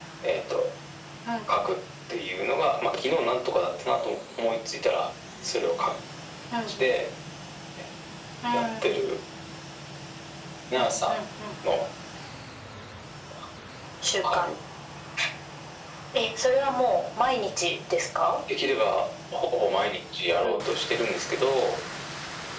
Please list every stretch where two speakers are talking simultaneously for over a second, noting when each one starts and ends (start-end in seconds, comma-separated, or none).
none